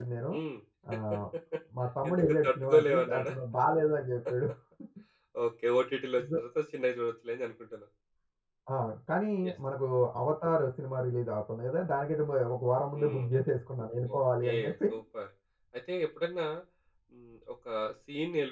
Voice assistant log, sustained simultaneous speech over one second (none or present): present